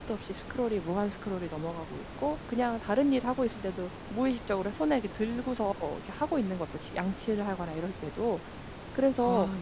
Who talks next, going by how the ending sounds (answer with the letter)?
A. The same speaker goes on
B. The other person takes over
A